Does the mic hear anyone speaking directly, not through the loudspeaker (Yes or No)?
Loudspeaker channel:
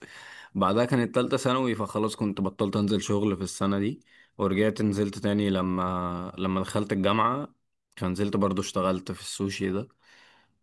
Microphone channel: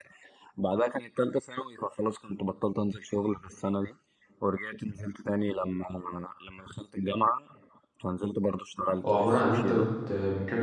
Yes